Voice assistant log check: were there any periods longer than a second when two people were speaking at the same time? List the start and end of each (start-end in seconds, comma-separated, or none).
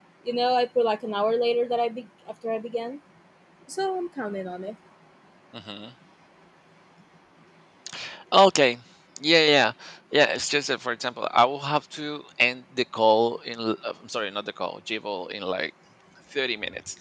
none